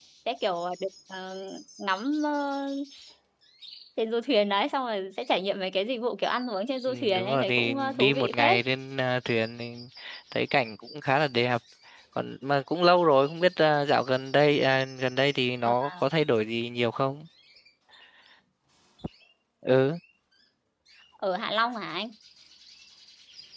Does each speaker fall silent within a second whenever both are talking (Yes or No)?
No